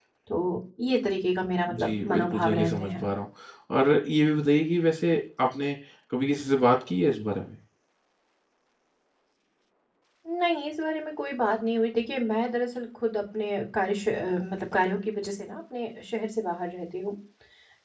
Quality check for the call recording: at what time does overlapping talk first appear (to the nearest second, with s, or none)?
2 s